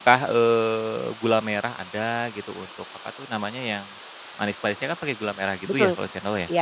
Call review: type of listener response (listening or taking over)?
taking over